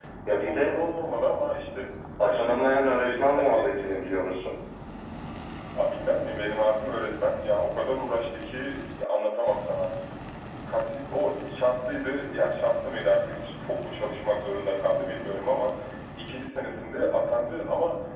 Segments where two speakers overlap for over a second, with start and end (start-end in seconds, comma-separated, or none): 2.2-3.7